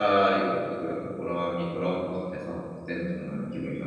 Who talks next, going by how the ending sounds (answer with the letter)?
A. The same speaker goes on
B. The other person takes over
B